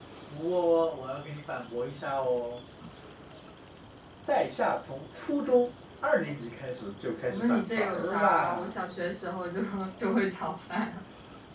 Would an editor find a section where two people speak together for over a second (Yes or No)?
Yes